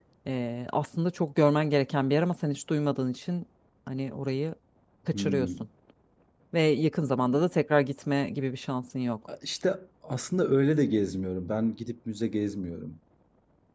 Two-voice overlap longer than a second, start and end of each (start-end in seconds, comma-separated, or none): none